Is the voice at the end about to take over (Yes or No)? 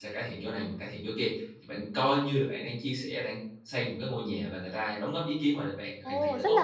Yes